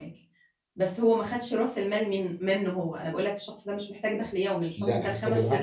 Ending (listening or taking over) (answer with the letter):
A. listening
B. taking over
B